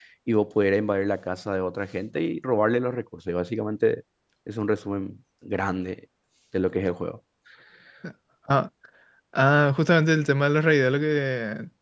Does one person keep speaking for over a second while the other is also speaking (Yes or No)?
No